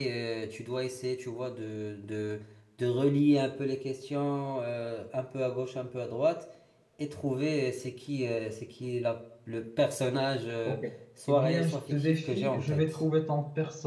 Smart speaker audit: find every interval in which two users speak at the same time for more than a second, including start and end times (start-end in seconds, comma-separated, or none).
11.3-13.0